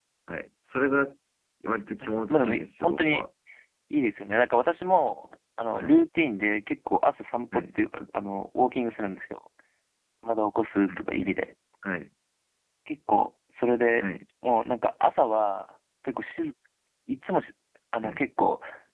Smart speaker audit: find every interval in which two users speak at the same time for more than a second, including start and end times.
2.0-3.2

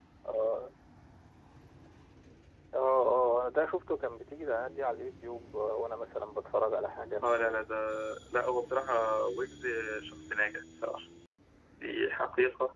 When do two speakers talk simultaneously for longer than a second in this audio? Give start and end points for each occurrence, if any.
none

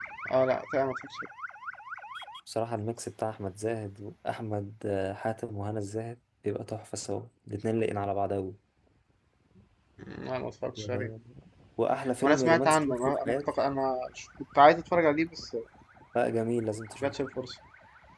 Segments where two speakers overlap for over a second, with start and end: 12.2-13.5

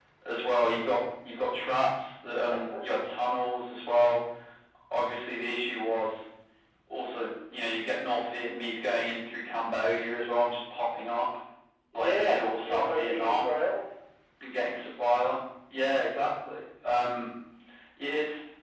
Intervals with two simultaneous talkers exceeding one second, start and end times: 11.9-13.5

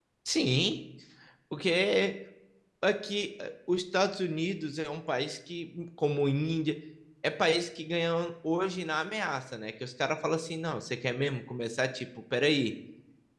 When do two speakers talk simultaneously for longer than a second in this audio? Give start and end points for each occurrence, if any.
none

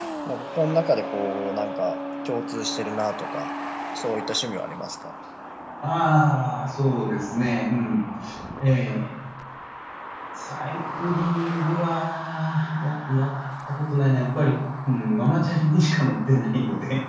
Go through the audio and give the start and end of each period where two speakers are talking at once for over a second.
none

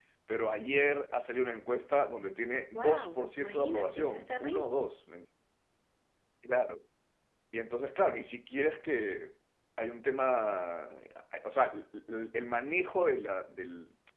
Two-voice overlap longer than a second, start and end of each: 2.8-4.7

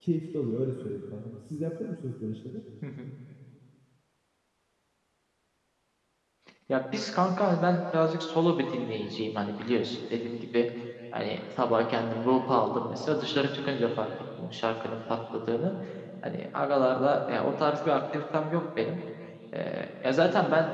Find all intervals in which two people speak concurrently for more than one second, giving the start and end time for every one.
none

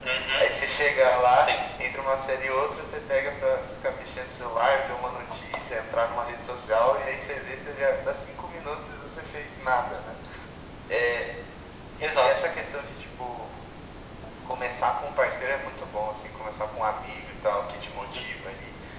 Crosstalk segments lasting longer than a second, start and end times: none

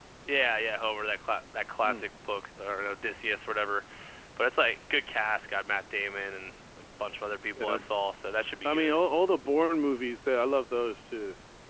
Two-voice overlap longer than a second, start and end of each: none

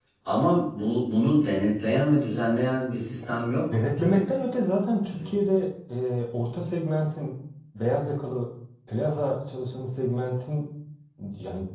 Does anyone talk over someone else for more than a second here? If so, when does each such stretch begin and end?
none

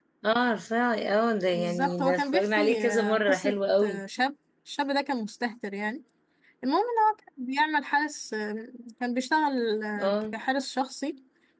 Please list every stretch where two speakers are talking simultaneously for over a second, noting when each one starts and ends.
1.5-4.0

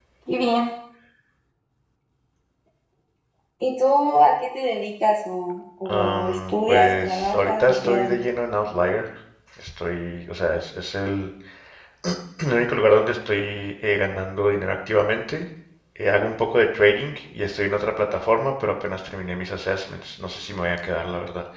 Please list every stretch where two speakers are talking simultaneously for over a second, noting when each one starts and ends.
5.9-8.2

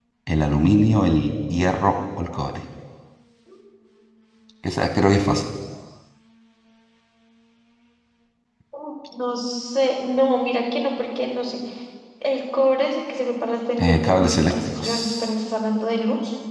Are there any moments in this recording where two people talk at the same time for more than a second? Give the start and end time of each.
13.8-15.3

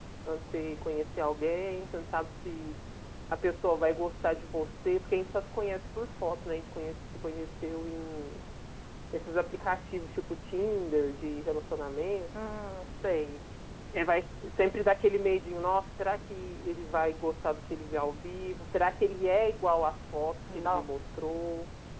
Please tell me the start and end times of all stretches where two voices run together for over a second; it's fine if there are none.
none

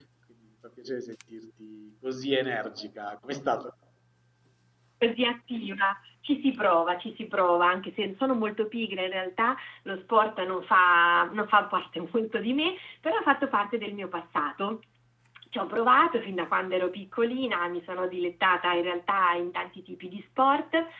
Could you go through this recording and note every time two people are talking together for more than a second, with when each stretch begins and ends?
none

